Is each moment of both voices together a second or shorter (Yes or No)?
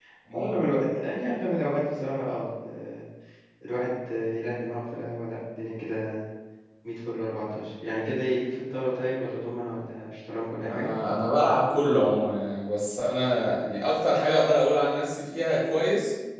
Yes